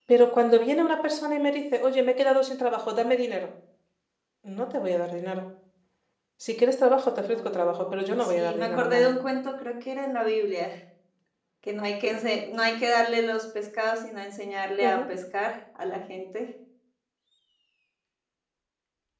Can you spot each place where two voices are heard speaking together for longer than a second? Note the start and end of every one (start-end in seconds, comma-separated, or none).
7.3-9.2